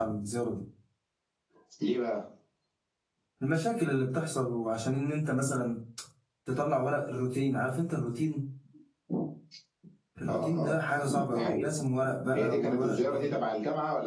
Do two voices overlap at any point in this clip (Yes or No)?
Yes